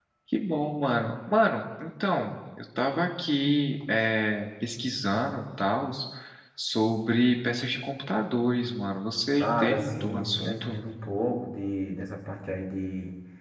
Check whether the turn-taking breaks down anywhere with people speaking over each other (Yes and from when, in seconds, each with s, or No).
Yes, from 9.4 s